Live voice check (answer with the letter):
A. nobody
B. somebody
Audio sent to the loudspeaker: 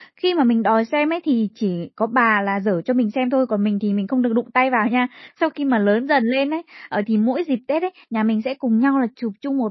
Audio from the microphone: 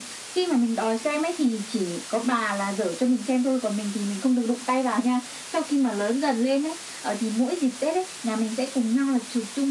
A